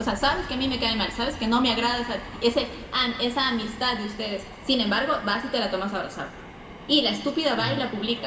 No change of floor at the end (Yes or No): Yes